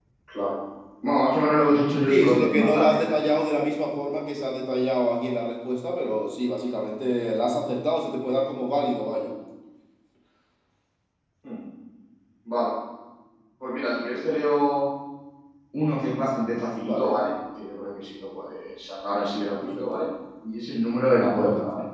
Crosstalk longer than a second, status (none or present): present